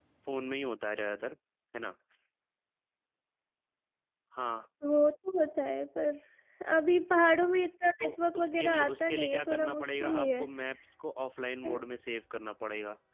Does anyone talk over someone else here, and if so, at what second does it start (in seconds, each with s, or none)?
8.0 s